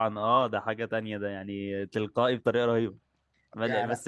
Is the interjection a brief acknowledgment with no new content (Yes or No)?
Yes